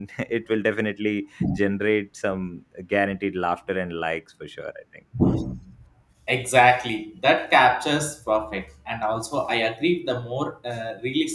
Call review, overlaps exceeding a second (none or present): none